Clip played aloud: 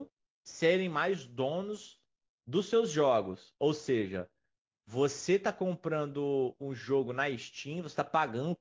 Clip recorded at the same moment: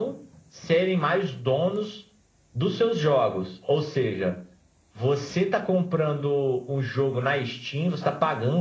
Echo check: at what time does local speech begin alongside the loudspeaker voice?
none

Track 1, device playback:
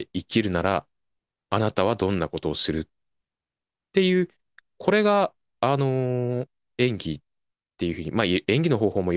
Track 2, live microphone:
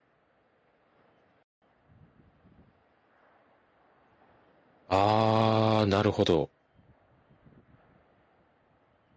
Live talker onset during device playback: 4.9 s

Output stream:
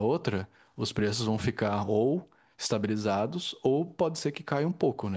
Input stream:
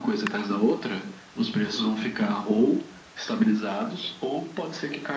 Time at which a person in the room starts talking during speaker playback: none

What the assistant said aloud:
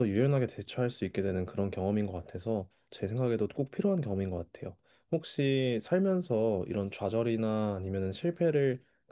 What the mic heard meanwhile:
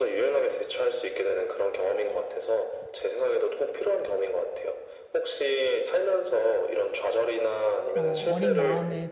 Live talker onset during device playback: 8.0 s

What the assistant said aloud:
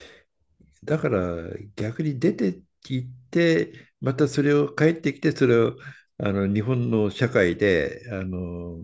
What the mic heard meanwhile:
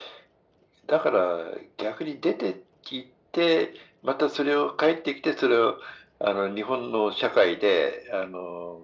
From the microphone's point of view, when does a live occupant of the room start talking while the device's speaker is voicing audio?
none

